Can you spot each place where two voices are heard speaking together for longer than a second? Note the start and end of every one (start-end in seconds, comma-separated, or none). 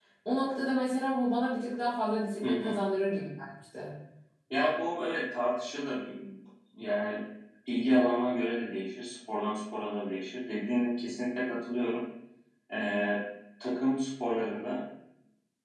none